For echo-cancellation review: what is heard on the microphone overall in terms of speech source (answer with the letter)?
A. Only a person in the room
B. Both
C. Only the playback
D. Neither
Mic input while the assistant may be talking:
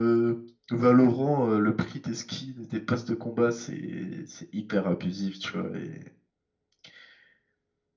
C